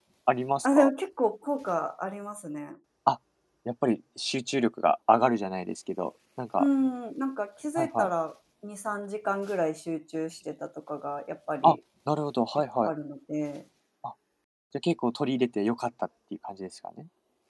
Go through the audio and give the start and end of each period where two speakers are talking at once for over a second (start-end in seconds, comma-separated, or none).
none